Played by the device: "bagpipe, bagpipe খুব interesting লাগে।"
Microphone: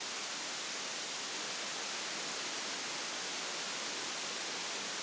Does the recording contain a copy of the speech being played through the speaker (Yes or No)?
No